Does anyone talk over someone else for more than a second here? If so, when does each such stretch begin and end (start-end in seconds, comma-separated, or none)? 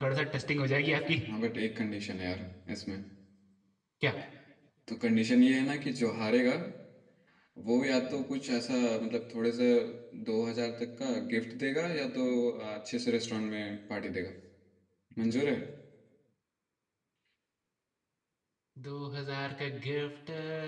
none